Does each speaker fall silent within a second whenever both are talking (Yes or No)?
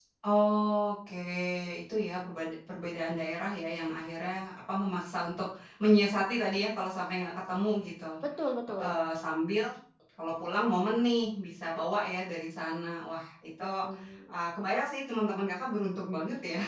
Yes